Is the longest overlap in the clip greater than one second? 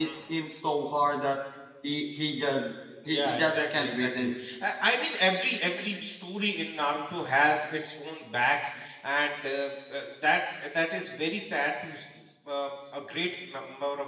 Yes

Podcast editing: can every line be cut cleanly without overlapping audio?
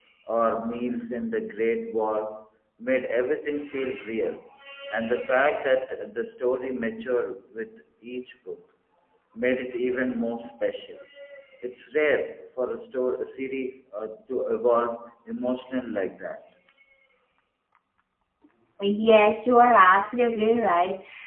Yes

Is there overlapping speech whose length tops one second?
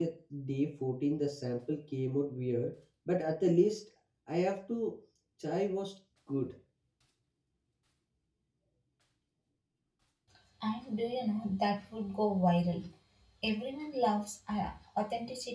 No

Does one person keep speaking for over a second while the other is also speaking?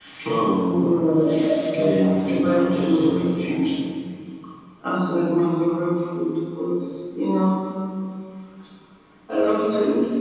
Yes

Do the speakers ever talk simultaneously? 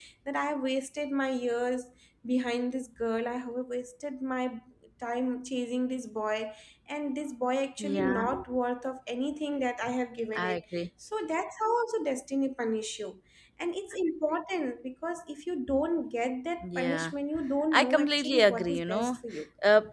Yes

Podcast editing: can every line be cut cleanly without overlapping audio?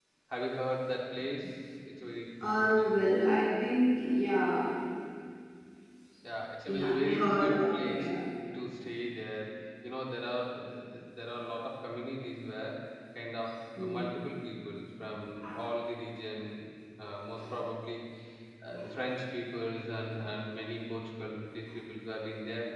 No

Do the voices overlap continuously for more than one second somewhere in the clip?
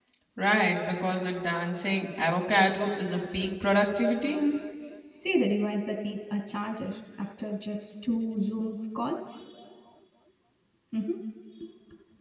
No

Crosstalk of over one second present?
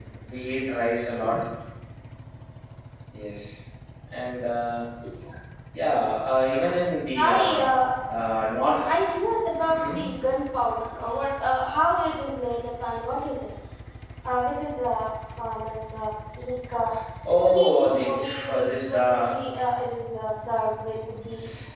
Yes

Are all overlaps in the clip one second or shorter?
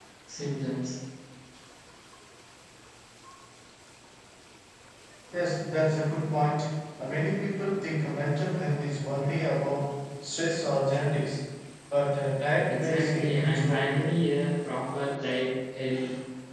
No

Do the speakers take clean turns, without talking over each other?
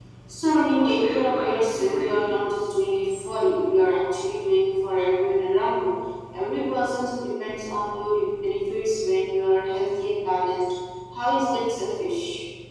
No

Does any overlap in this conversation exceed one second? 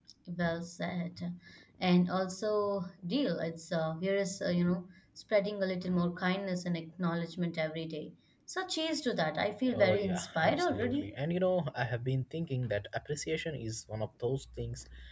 Yes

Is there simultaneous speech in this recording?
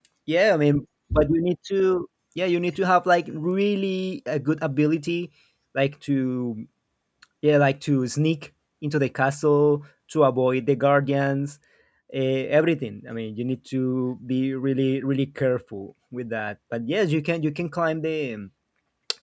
No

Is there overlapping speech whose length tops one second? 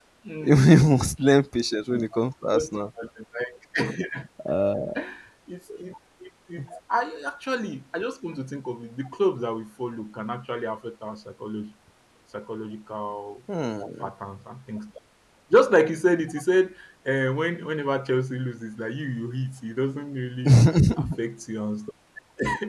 No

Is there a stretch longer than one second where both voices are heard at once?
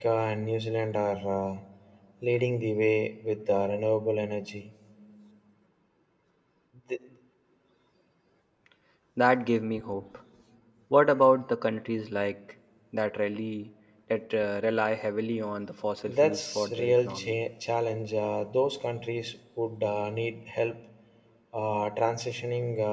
Yes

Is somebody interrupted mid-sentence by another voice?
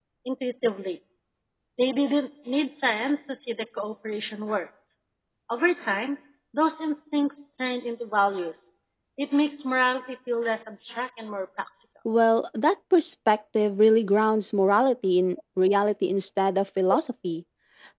No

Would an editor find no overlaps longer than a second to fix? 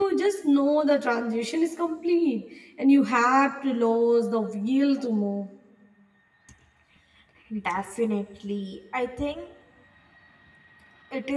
Yes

